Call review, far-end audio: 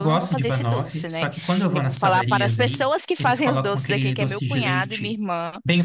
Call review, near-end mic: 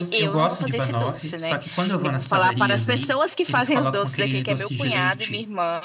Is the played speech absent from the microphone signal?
No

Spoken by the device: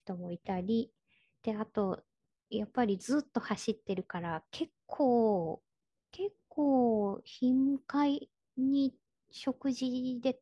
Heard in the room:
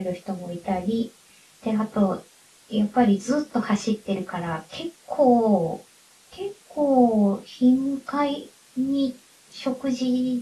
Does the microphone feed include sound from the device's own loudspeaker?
Yes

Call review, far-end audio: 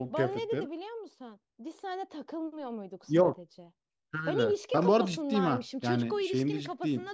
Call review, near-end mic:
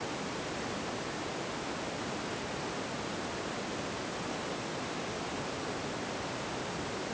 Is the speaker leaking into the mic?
No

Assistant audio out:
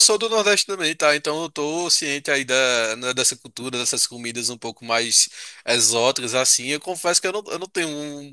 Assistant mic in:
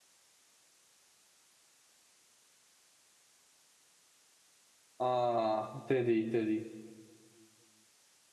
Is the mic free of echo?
Yes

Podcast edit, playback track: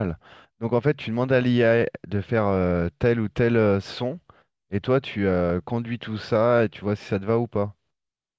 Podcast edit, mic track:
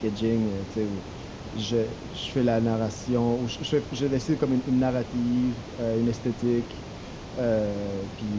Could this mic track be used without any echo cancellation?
Yes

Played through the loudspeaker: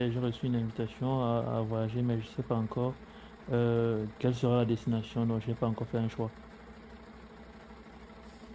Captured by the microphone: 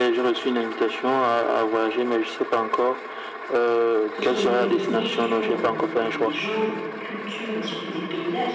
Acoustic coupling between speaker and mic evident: Yes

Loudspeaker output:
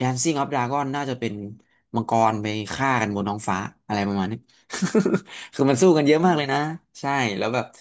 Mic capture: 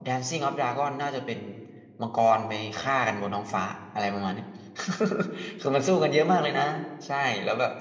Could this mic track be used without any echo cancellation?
No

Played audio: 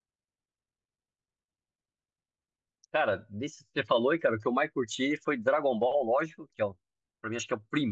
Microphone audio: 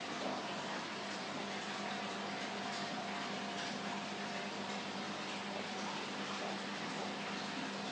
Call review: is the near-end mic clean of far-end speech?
Yes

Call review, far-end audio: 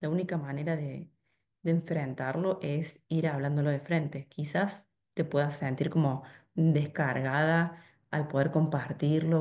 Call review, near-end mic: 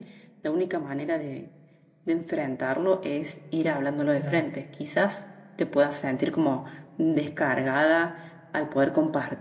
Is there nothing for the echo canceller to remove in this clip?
No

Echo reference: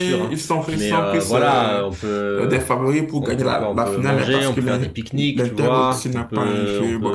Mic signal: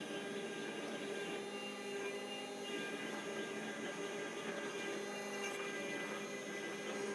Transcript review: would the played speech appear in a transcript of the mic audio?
No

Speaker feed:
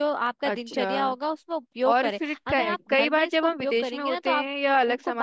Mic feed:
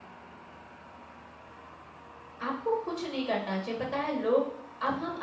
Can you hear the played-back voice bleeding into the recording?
No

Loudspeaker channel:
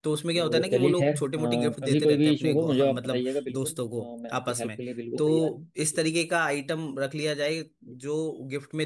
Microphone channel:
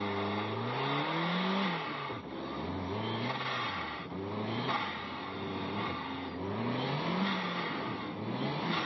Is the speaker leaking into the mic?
No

